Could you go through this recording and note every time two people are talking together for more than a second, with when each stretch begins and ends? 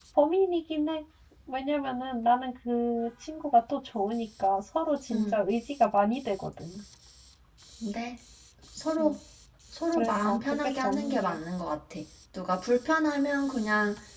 9.9-11.4

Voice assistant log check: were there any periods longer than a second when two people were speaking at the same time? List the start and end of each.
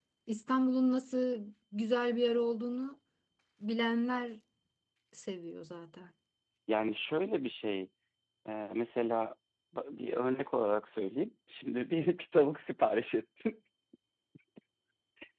none

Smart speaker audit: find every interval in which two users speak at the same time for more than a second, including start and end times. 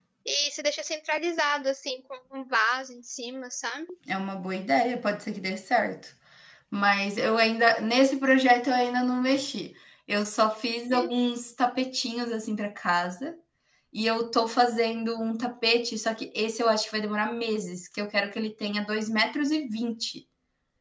none

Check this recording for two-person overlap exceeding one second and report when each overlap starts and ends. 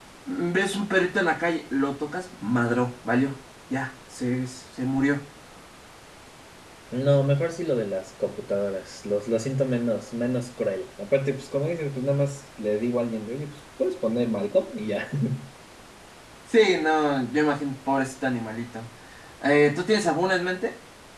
none

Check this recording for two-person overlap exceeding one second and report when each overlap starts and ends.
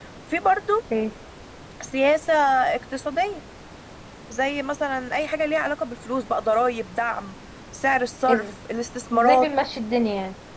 none

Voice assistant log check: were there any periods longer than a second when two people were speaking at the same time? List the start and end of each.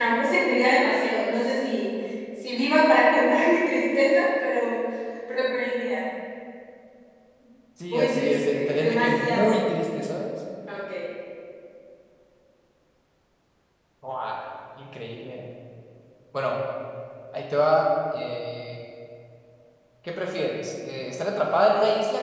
7.9-9.6

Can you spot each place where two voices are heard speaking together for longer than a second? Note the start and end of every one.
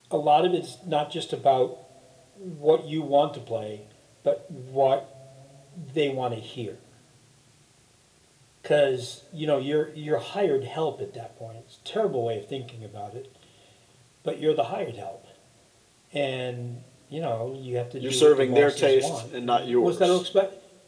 18.0-20.2

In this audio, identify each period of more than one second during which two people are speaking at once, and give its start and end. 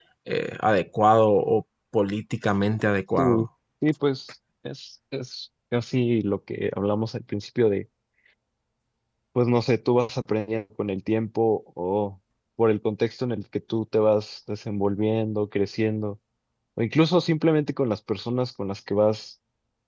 none

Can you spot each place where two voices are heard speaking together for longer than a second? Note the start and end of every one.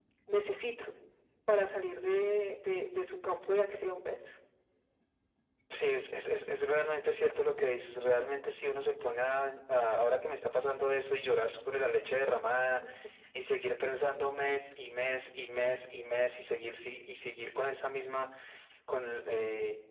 none

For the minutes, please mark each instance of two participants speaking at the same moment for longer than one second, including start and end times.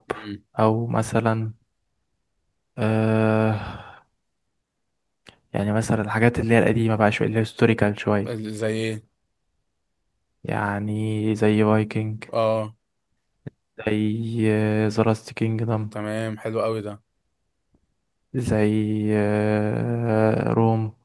none

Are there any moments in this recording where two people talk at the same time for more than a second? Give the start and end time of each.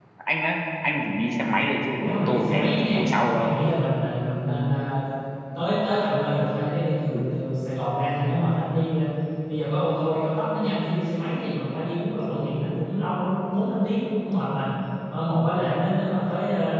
2.0-3.6

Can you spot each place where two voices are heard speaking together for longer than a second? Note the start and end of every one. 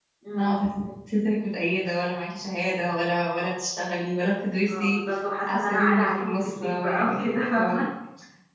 5.5-7.9

